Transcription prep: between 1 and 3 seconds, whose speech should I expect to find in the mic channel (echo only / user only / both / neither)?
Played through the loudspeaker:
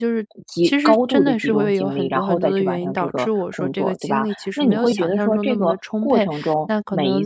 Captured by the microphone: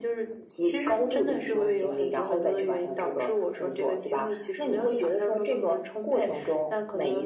echo only